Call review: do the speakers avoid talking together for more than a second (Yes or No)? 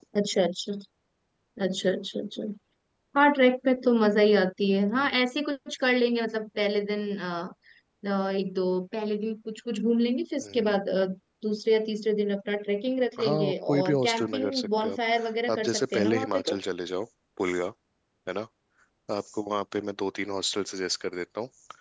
No